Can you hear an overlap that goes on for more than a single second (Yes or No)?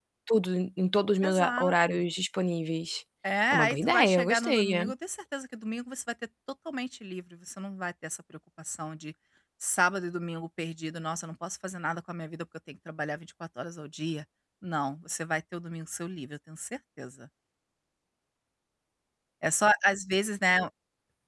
Yes